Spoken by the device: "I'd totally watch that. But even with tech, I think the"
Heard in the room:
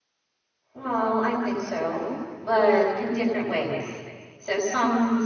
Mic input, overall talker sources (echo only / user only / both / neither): user only